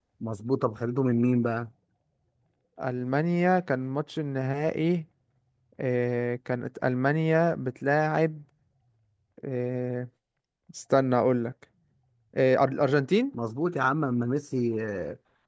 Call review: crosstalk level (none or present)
none